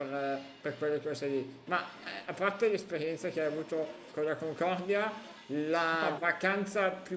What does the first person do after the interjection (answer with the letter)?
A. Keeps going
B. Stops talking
A